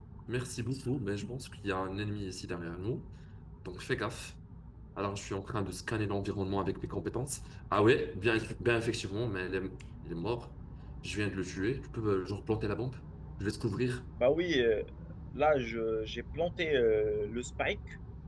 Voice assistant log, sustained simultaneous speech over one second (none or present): none